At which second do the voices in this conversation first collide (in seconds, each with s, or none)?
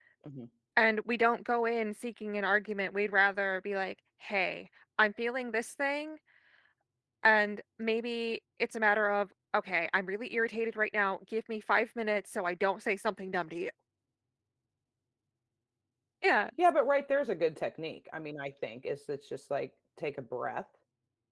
none